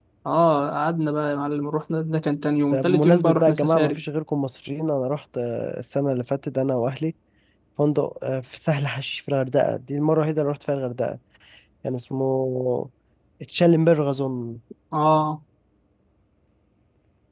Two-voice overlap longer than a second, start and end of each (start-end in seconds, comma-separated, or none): 2.7-4.0